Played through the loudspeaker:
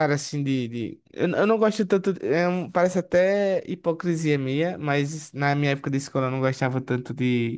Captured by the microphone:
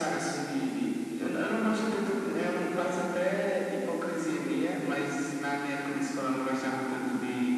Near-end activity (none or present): none